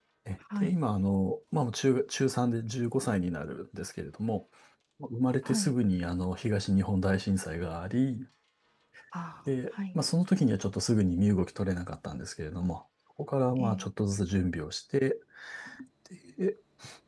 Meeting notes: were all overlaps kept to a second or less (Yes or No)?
Yes